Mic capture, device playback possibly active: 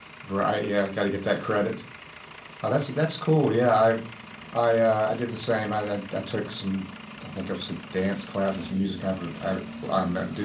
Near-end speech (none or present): present